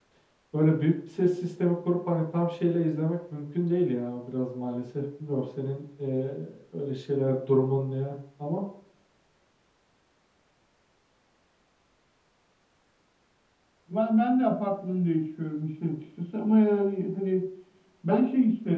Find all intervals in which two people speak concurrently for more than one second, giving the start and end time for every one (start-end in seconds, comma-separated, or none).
none